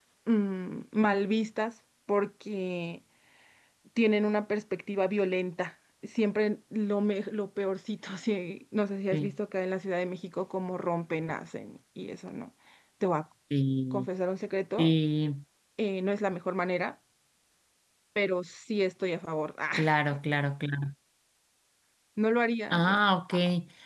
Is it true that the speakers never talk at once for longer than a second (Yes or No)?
Yes